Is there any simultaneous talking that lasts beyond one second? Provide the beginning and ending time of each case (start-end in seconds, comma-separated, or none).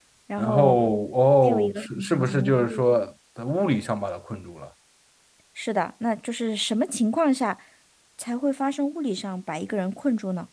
1.4-2.8